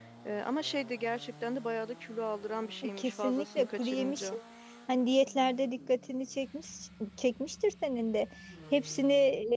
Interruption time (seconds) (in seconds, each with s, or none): 3.0 s